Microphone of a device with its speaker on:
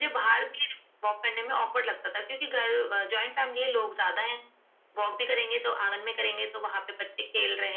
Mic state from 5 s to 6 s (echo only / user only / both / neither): echo only